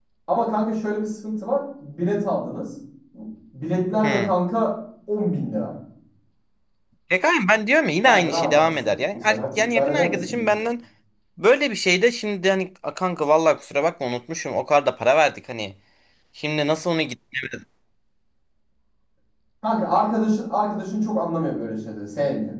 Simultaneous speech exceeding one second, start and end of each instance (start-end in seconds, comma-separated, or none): 8.0-10.5